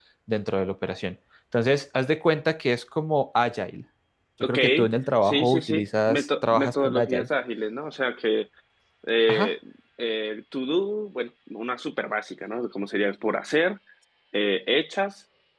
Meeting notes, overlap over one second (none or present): present